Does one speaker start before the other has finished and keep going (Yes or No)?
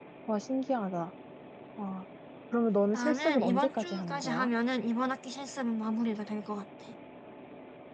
Yes